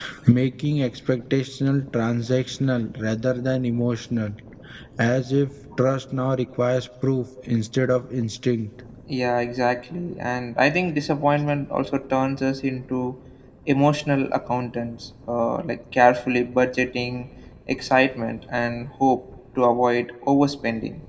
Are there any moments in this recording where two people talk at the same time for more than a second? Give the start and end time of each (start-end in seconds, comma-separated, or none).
none